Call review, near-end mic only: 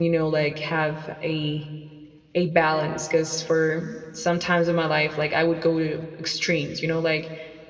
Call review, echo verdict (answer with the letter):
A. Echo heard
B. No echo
B